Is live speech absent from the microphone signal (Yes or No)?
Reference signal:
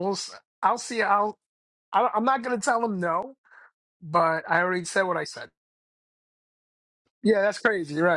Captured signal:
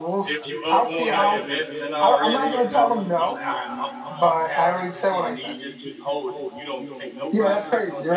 No